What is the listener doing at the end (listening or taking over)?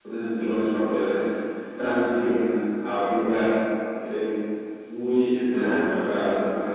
listening